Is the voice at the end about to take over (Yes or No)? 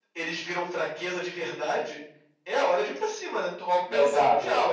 Yes